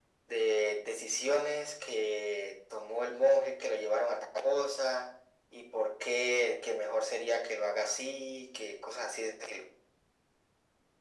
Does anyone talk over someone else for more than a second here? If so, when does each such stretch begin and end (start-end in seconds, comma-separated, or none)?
none